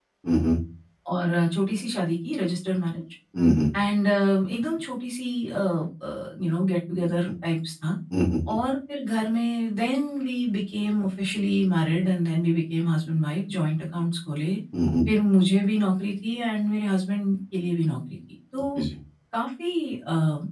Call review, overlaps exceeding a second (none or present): none